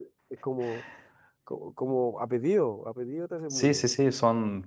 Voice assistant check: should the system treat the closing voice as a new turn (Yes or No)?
Yes